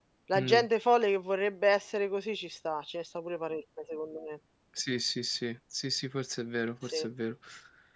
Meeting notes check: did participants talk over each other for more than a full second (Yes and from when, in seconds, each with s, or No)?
No